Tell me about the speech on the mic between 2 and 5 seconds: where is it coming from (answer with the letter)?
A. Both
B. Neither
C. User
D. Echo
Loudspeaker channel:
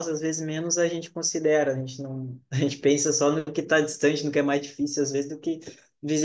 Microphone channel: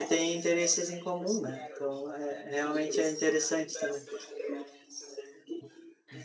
A